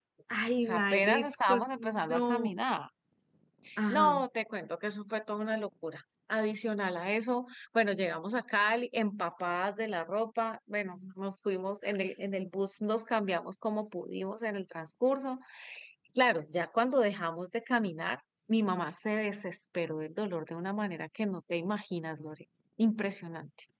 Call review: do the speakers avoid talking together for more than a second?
No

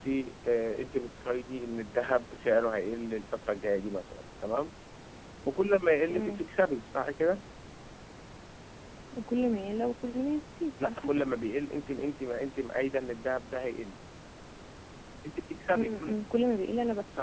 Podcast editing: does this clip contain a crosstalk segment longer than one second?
No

